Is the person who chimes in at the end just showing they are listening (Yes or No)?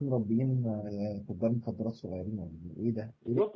No